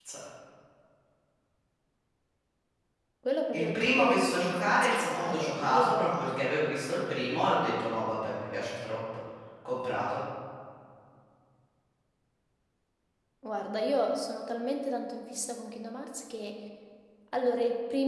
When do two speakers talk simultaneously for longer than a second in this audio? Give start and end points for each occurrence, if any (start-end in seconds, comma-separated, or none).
3.5-6.3